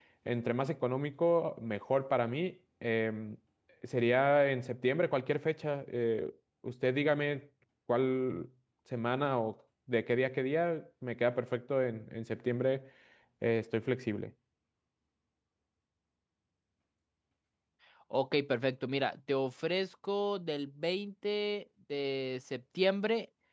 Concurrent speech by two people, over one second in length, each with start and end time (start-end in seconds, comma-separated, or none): none